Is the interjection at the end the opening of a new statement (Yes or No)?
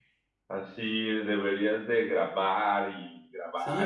Yes